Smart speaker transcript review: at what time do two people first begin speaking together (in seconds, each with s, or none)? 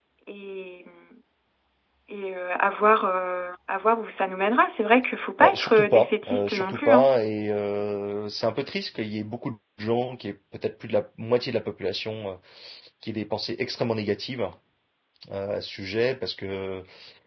5.4 s